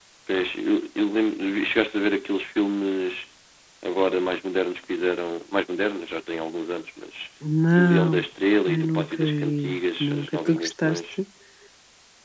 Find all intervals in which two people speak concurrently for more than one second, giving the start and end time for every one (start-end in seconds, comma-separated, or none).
8.7-11.0